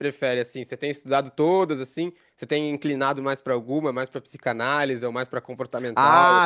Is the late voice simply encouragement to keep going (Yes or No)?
No